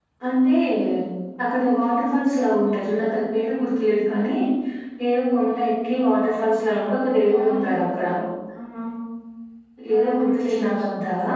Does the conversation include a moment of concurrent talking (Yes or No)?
Yes